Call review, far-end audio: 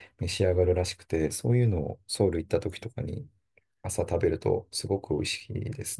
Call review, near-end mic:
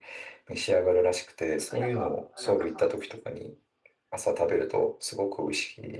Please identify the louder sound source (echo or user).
echo